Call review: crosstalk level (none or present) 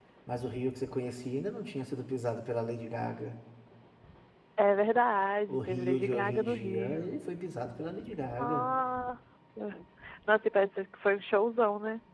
present